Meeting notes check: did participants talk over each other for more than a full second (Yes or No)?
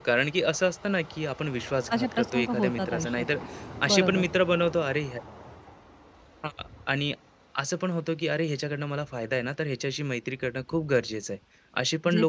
Yes